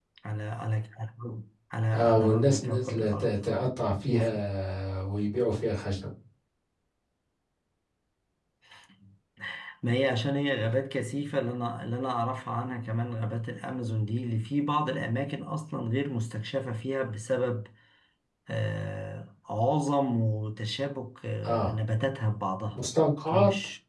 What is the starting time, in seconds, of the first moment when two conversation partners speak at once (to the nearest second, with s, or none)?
2 s